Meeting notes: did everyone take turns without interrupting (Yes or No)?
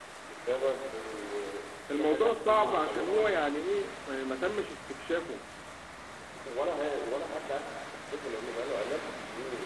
No